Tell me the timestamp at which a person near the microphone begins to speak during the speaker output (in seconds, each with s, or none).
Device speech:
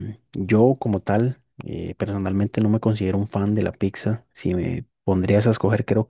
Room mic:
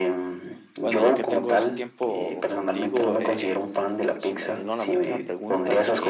0.8 s